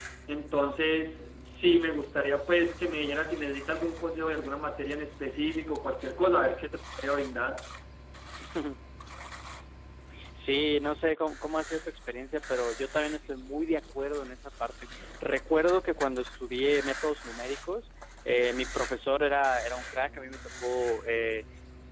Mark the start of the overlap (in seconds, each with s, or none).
none